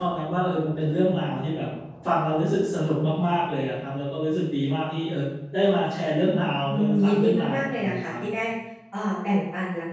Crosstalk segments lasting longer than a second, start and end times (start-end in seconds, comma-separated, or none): 6.7-8.2